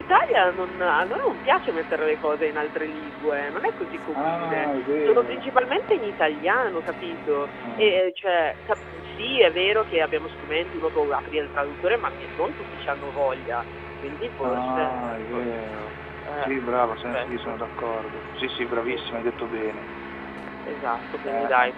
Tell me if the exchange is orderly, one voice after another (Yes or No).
No